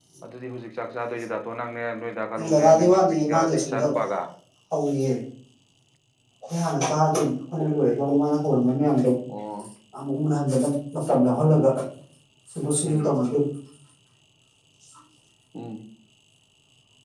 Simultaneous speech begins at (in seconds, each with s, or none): 2.5 s